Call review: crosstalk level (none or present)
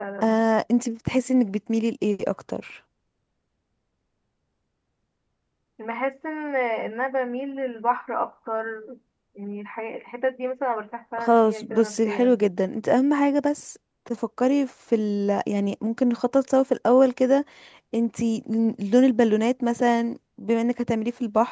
present